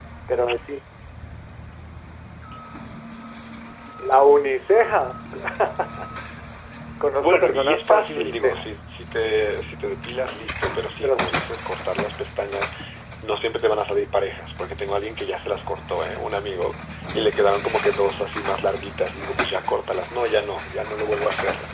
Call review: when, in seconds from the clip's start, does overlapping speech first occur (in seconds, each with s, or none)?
7.2 s